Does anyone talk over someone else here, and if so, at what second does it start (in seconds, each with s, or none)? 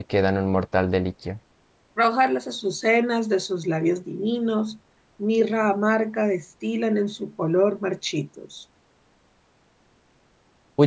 none